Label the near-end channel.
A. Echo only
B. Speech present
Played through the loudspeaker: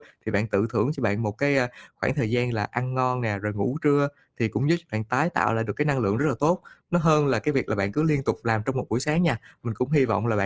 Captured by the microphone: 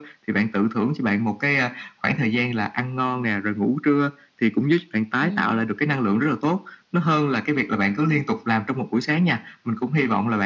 B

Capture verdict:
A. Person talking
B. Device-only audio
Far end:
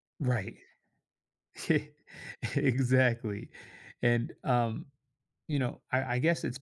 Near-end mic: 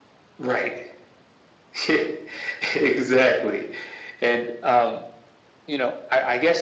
B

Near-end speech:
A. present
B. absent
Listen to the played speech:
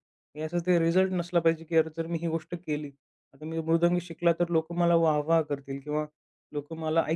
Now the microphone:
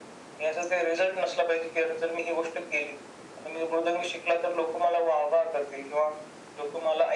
B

